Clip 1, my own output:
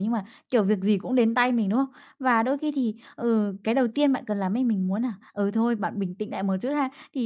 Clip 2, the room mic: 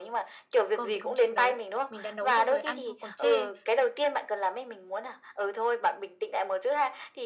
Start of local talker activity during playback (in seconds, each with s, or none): 0.7 s